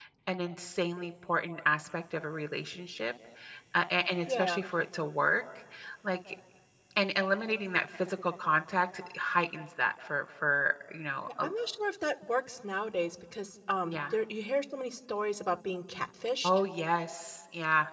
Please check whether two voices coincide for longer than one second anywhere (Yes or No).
No